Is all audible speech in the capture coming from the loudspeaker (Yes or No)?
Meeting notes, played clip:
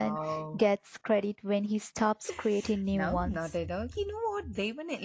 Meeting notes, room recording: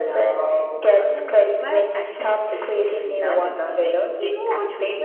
No